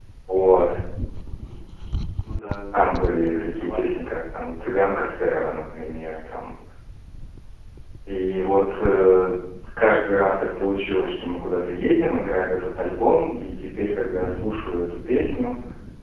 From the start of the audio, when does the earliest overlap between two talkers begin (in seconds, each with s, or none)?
2.7 s